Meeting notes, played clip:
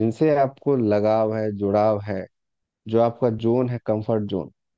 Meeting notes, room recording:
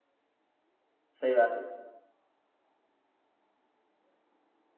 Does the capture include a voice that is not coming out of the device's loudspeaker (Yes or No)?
Yes